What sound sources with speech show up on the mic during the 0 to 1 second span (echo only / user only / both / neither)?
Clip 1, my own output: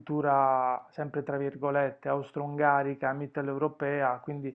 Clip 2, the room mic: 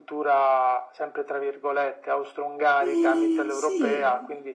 echo only